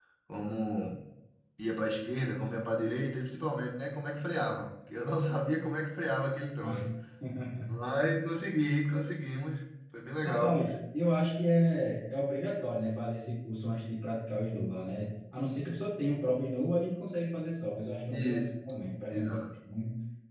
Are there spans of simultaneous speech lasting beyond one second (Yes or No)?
No